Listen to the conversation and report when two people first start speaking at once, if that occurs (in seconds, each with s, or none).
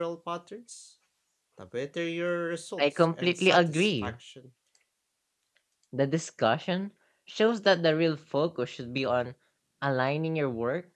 2.8 s